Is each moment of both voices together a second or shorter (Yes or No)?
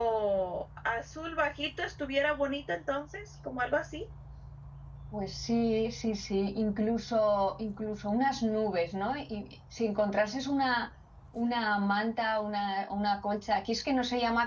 Yes